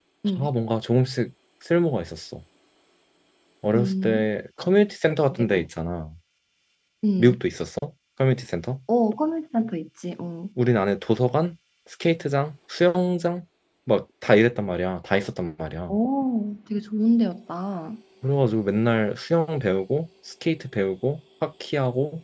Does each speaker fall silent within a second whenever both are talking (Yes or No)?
Yes